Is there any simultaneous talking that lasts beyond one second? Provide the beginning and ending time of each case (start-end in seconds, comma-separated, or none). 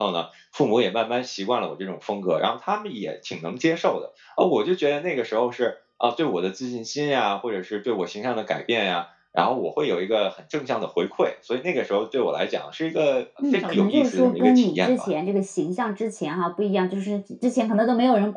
13.5-15.1